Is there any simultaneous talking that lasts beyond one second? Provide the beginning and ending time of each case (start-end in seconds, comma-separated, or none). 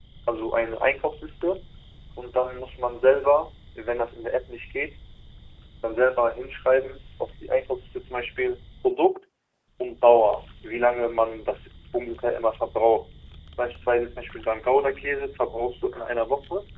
none